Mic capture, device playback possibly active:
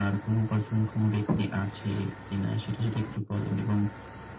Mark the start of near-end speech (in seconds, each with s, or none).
none